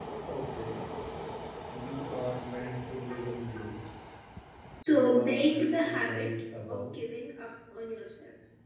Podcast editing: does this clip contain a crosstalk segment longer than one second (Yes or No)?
Yes